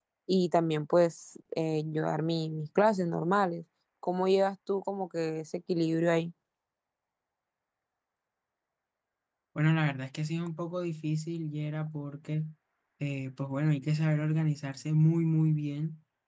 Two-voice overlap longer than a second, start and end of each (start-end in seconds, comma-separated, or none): none